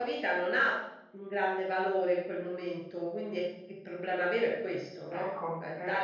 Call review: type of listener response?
taking over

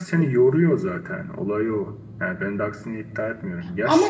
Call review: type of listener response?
listening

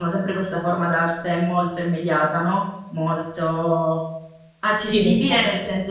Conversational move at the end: listening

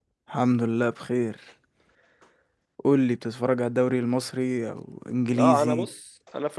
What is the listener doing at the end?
taking over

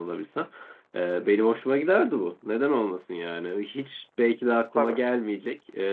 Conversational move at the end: listening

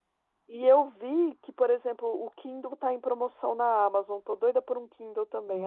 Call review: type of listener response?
taking over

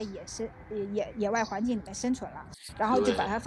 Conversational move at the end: listening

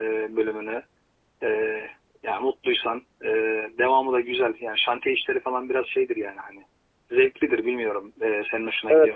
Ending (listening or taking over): taking over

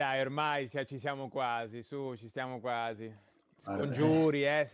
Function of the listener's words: listening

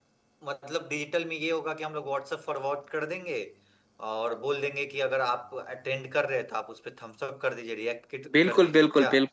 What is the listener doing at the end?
taking over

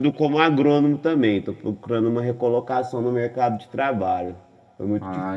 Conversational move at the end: taking over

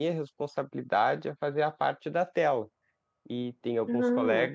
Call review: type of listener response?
listening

